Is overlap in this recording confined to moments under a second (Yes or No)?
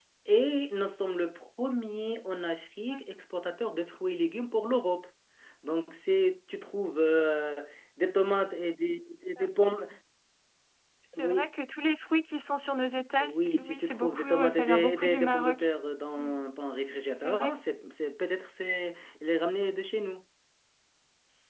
No